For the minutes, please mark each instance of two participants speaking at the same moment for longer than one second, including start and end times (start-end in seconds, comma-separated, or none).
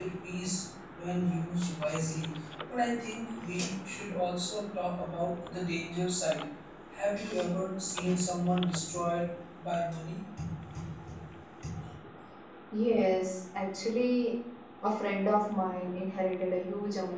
none